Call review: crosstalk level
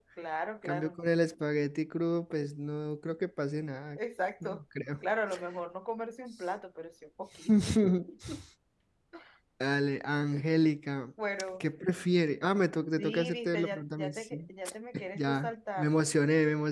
present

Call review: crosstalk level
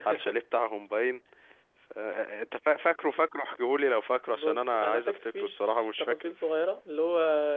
present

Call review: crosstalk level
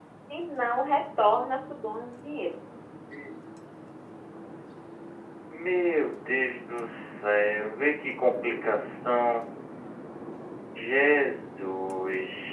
none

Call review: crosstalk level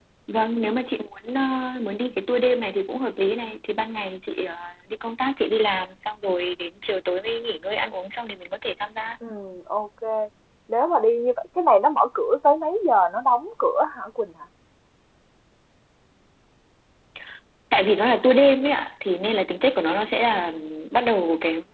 none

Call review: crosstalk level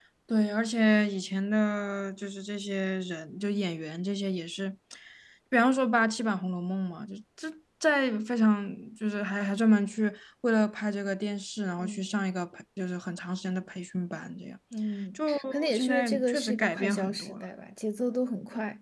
present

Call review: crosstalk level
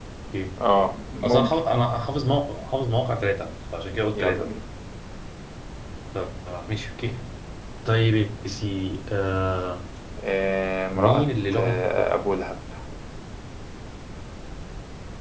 present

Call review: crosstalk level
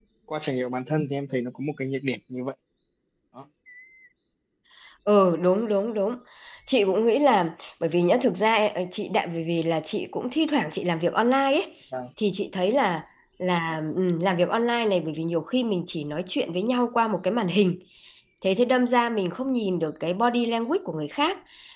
none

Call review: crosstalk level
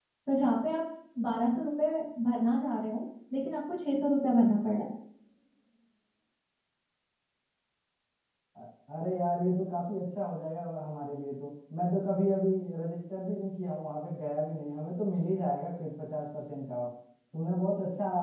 none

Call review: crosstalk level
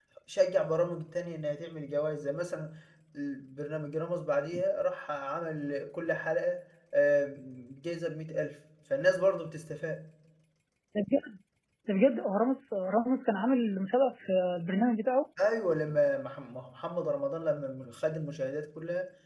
none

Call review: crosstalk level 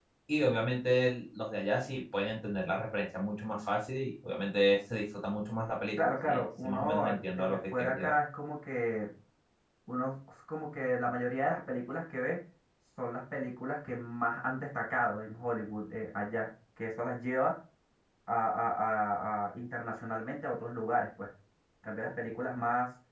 present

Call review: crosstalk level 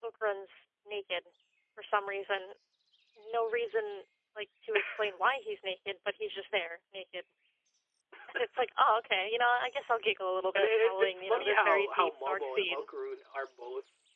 present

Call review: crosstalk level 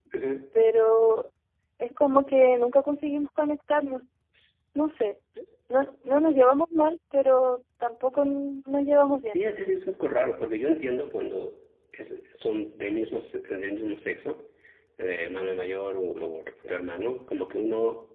none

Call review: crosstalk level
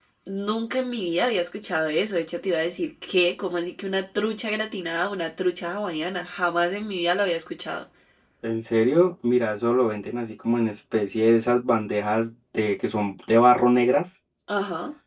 none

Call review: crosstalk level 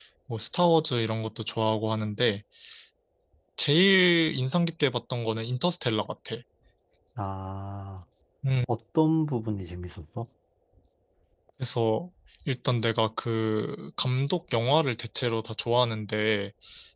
none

